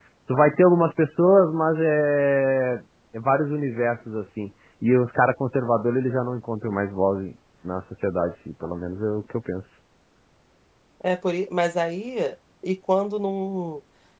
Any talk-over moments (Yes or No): No